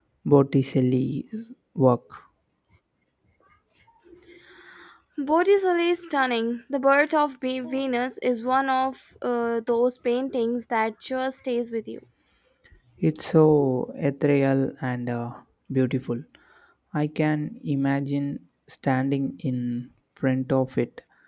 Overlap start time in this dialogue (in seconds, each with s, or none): none